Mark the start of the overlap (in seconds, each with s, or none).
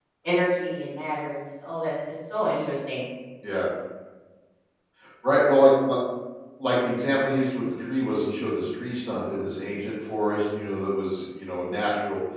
none